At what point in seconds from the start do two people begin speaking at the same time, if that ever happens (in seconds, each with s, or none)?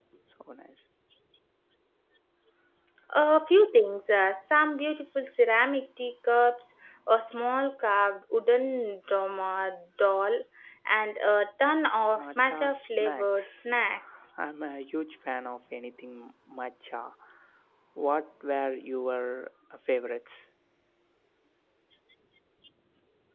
12.1 s